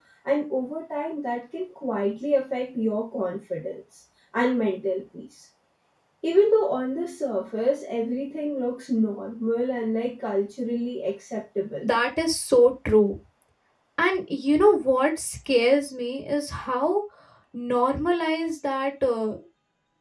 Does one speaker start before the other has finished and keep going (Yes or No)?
No